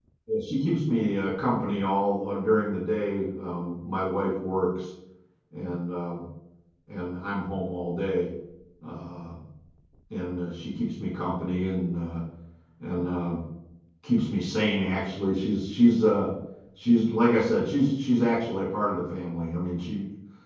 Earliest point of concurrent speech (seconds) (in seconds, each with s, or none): none